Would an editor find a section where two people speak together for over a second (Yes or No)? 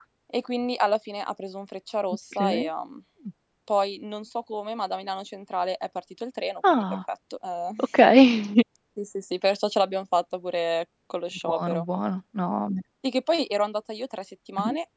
No